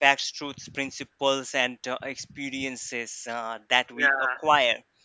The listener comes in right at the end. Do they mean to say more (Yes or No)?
No